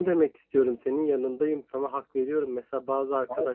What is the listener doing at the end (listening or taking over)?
listening